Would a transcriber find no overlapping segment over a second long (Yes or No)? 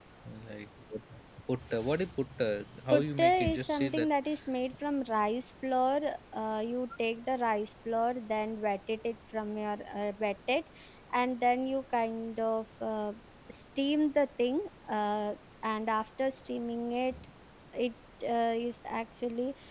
No